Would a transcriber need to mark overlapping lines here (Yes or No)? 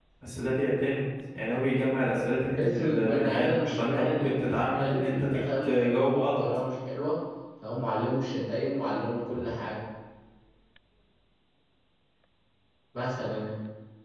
Yes